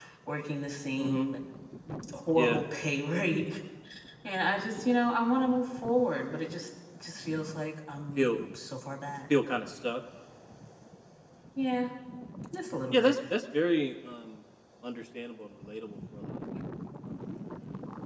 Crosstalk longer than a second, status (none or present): none